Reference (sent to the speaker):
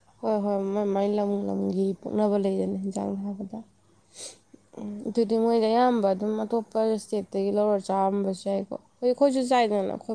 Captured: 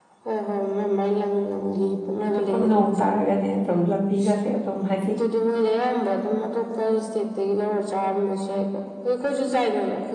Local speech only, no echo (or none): ꯆꯨꯞꯄ ꯅꯣꯡ ꯇꯥꯔꯒꯅꯦ ꯑꯗꯨꯝ ꯂꯝꯕꯤꯒꯁꯦ ꯑꯗꯨꯝ ꯍꯥꯏꯗꯤ